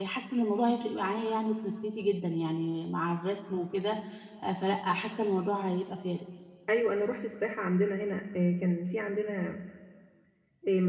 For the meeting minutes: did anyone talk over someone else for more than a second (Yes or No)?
No